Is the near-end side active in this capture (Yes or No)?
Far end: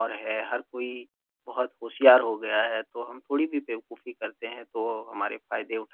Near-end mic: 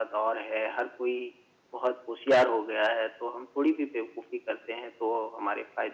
No